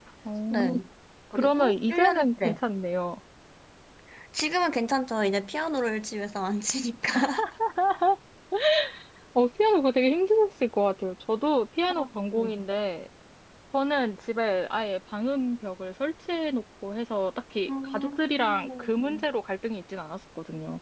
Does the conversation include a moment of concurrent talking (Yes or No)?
Yes